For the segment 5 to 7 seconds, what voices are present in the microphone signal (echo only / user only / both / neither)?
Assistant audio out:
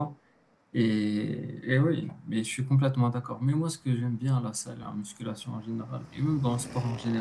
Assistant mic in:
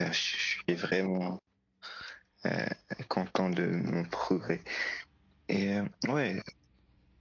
user only